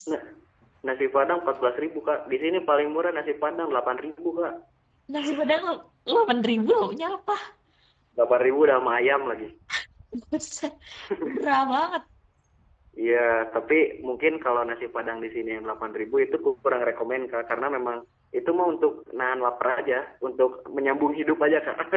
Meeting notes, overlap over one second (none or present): none